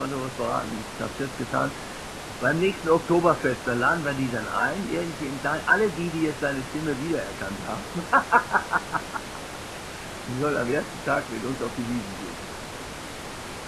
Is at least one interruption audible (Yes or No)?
No